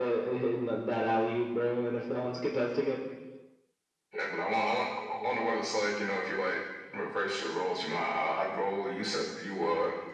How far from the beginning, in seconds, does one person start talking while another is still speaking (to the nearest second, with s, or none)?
none